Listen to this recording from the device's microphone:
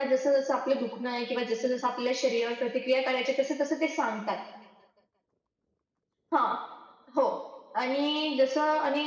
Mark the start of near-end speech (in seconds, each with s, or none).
none